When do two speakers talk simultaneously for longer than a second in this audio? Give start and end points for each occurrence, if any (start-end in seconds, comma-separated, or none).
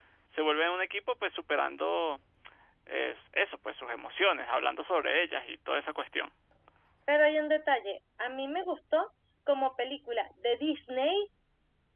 none